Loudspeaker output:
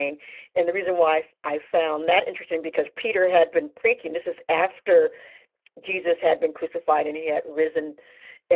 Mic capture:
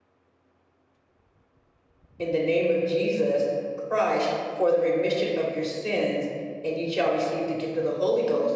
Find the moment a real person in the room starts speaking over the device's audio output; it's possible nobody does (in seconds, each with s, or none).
2.2 s